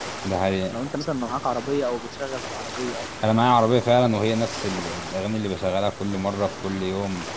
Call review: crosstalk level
none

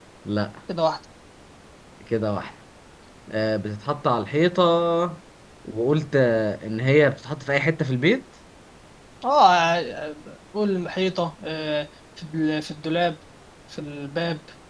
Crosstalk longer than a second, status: none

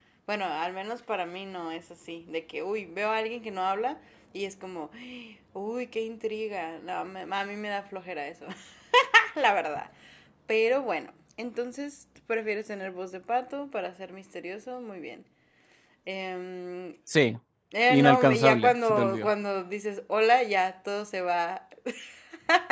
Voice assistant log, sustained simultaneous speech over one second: present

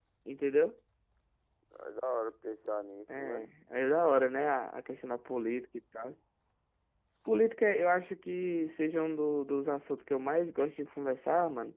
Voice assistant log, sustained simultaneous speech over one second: none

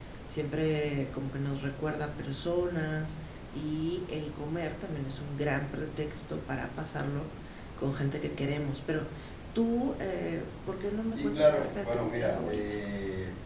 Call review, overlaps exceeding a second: present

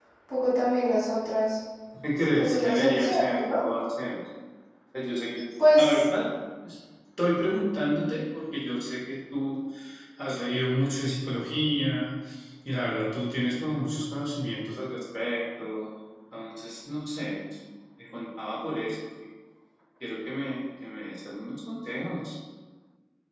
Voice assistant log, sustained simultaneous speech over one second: present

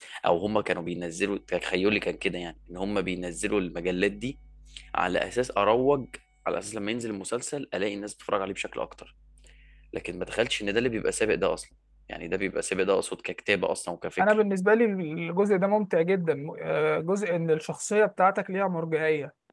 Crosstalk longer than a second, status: none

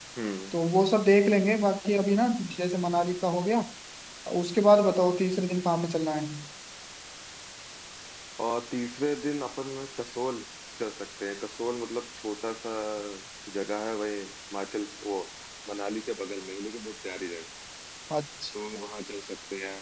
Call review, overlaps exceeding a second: none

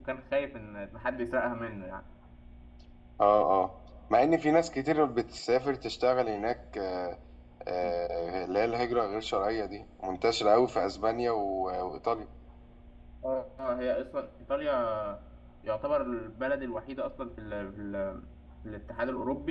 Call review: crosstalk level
none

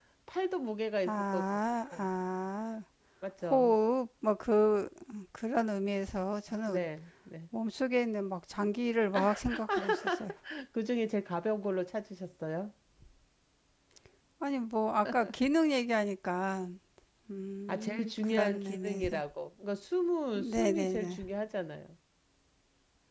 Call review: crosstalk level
present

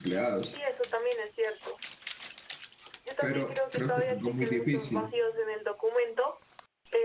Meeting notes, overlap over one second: present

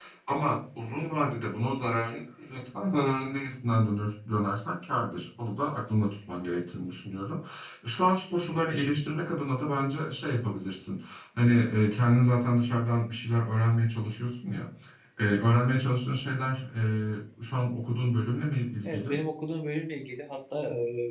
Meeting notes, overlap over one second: none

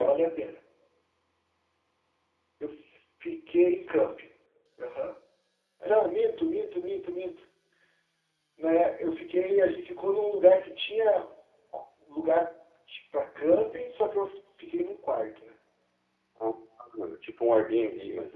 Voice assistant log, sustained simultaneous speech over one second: none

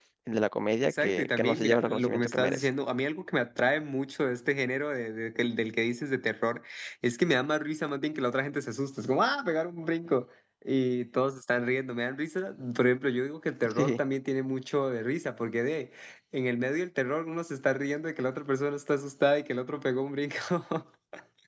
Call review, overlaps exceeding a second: present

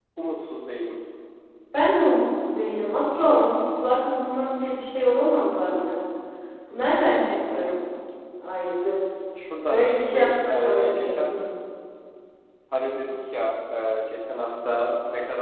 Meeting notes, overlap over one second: present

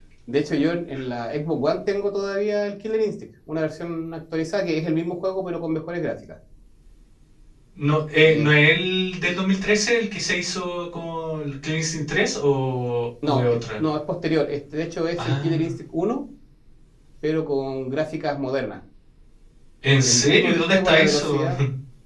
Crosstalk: present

